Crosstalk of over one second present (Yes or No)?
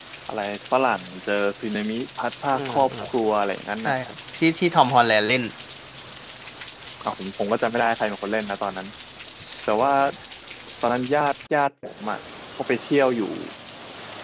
No